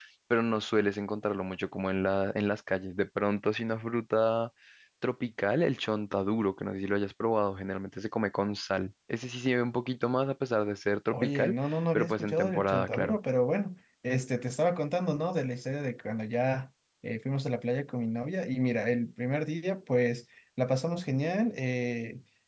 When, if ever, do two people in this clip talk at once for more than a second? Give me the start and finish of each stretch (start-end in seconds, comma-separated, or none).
11.1-13.2